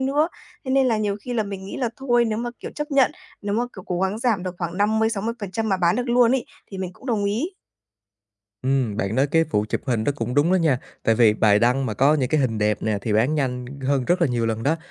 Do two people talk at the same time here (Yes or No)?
No